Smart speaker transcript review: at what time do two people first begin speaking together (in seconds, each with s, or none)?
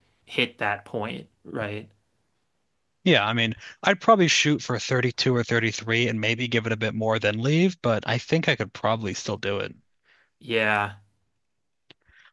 none